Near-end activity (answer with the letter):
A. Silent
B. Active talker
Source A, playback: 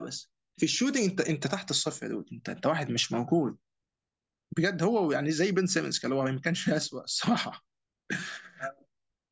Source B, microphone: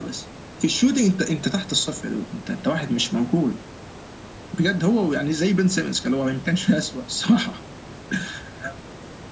A